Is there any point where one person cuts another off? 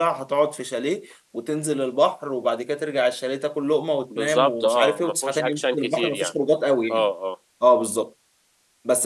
Yes, from 4.1 s

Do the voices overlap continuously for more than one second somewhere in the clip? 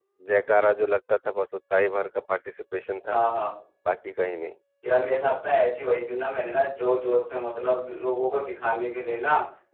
No

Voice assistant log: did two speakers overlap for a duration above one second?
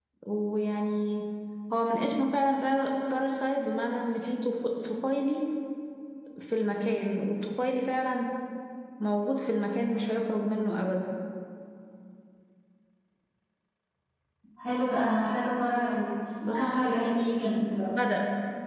Yes, from 16.4 s

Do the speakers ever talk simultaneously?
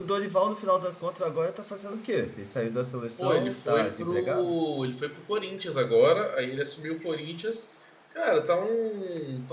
Yes, from 3.2 s

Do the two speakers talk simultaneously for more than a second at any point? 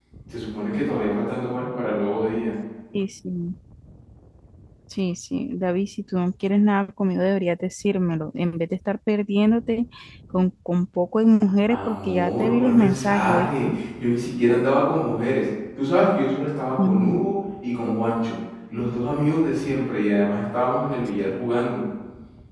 Yes, from 11.7 s

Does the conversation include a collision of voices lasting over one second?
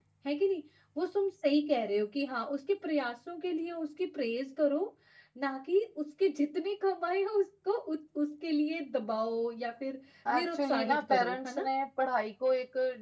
Yes, from 10.2 s

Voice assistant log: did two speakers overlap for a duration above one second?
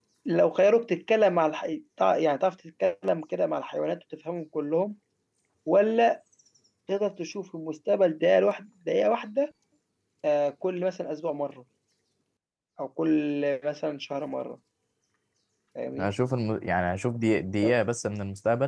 No

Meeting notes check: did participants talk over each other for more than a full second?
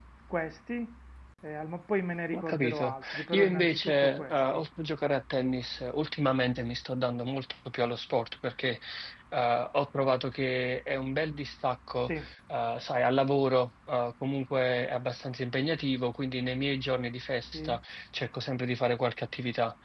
Yes, from 2.3 s

